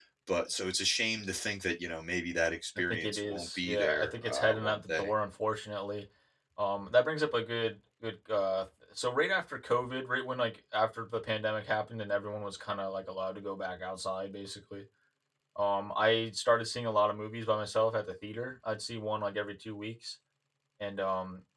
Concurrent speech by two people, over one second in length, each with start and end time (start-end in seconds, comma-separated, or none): 2.9-5.1